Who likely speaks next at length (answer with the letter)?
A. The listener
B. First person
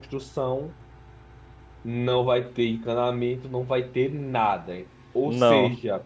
B